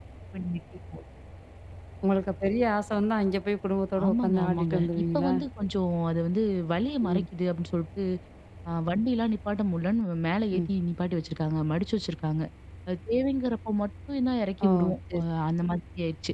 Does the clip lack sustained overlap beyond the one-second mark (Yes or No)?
No